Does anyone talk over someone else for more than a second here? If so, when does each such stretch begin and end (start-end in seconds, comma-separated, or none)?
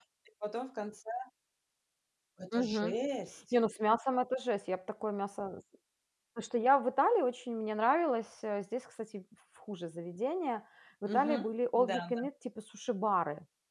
11.1-12.3